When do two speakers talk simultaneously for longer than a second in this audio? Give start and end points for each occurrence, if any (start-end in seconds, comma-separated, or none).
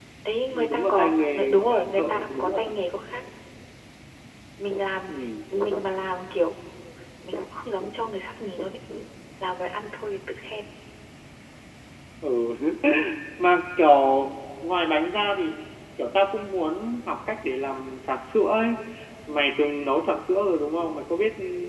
0.5-2.7